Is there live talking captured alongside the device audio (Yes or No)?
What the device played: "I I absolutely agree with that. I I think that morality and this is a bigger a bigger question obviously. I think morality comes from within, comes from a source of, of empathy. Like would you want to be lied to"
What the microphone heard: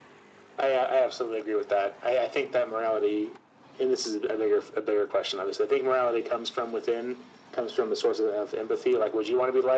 No